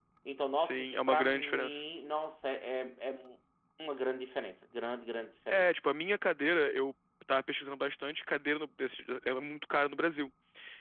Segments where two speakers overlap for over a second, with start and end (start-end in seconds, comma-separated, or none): 0.5-1.8